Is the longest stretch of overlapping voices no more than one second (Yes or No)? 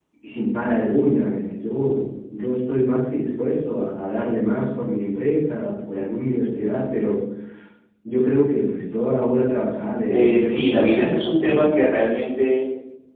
No